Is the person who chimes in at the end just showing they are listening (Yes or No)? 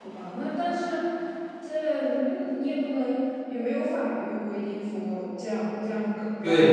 No